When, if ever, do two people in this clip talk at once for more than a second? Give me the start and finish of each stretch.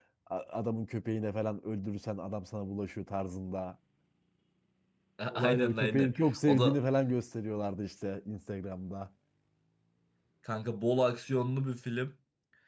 5.3-6.8

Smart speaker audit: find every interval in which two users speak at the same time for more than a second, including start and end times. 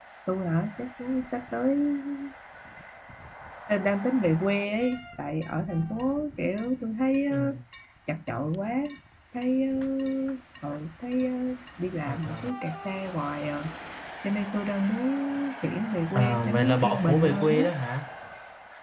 16.1-17.6

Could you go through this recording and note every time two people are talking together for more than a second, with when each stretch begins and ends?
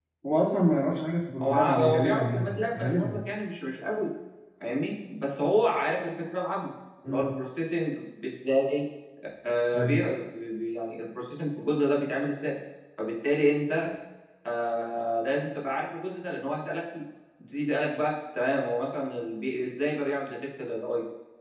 1.4-3.2

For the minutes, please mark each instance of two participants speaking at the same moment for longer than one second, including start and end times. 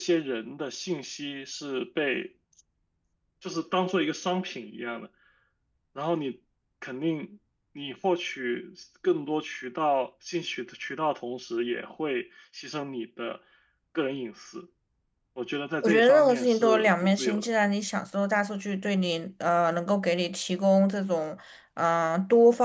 15.8-17.5

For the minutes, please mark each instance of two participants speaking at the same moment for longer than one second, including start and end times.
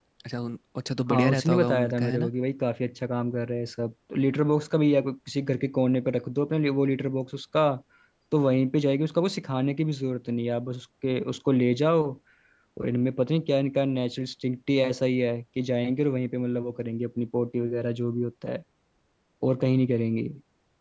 1.1-2.3

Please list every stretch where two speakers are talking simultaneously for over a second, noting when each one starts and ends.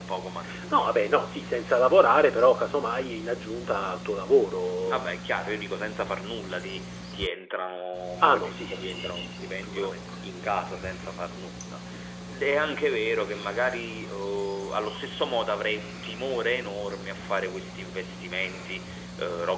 8.2-10.0

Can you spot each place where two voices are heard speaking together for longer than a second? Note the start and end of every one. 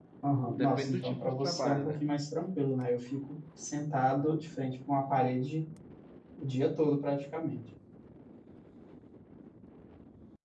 0.6-2.0

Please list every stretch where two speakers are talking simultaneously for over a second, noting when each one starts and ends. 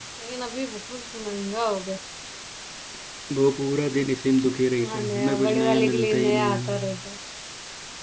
4.9-6.9

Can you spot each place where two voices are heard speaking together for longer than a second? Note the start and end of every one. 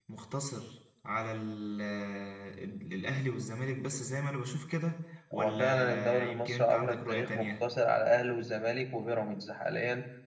5.3-7.5

